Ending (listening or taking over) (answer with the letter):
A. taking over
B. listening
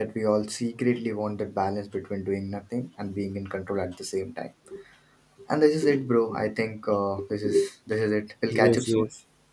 A